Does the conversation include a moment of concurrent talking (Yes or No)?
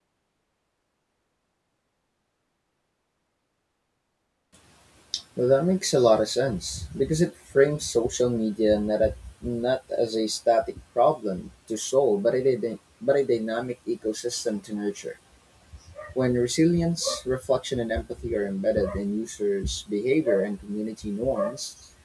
No